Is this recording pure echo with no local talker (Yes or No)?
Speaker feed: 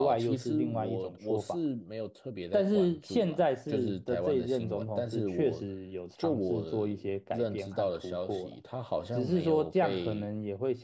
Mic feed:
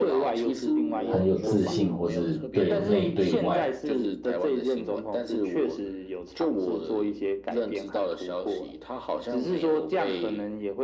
No